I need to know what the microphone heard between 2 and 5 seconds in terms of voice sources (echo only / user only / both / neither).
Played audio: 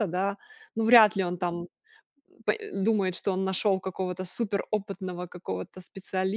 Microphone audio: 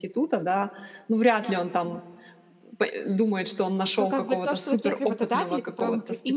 both